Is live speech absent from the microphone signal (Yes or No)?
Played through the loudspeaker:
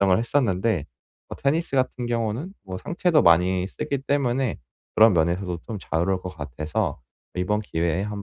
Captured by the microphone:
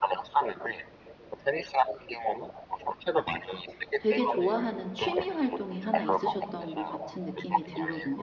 No